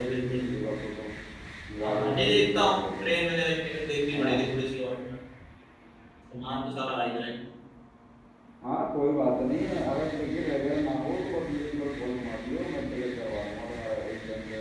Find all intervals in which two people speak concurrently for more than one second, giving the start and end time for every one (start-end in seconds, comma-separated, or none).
1.8-3.1